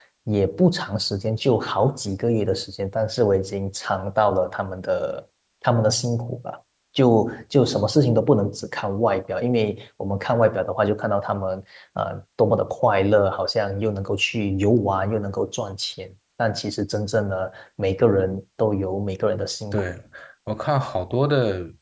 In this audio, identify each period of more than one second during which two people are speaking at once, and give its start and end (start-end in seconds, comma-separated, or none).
none